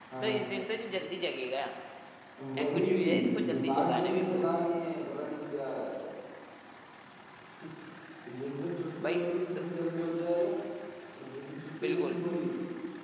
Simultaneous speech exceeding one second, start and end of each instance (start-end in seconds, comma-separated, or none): 2.6-4.5